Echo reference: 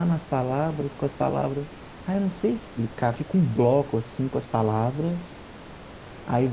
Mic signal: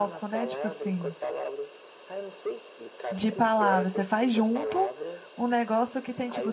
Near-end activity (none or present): present